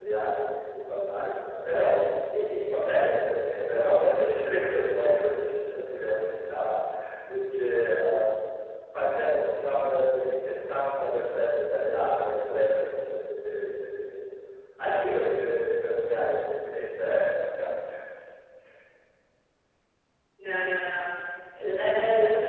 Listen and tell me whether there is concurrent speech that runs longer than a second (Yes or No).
No